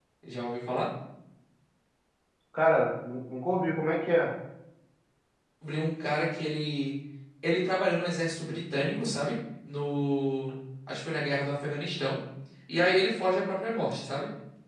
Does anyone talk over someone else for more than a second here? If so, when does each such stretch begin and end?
none

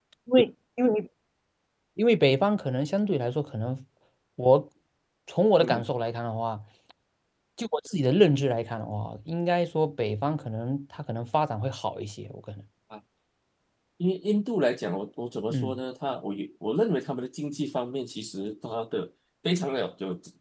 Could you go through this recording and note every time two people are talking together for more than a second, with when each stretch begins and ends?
none

